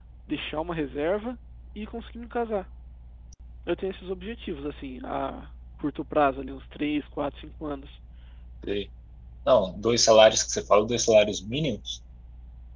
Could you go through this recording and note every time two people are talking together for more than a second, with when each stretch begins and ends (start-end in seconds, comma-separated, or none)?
none